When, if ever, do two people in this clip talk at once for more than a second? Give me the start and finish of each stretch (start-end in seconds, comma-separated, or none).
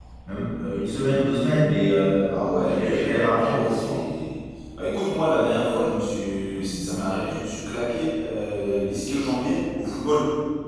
2.6-4.0